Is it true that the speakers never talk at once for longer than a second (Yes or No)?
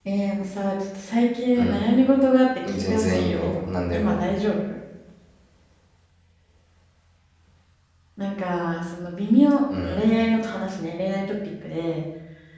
No